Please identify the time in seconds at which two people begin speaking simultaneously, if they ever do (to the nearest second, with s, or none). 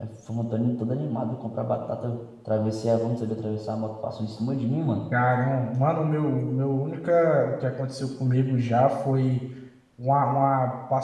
none